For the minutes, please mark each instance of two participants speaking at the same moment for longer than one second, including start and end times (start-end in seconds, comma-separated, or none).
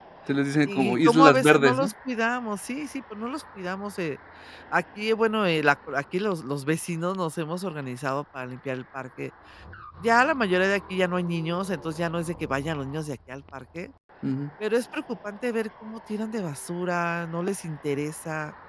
0.7-1.9